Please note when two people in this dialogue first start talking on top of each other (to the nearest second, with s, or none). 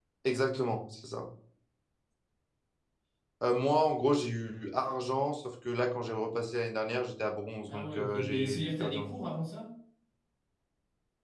8 s